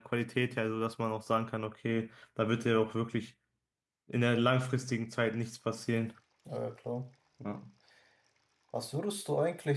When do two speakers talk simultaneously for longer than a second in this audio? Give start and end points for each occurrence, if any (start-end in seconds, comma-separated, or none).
none